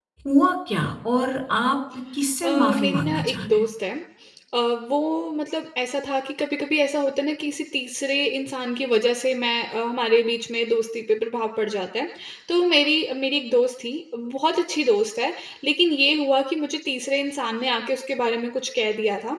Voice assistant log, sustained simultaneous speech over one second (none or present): present